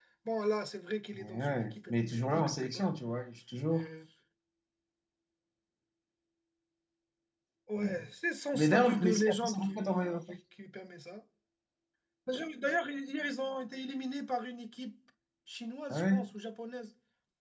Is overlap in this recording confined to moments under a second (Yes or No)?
No